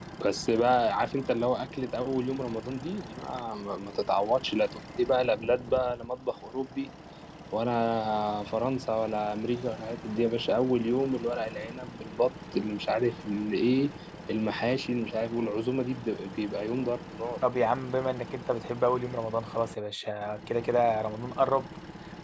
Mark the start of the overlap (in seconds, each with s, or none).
none